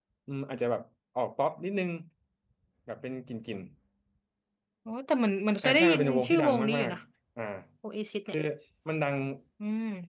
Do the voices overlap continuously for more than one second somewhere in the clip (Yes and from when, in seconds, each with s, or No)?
Yes, from 5.6 s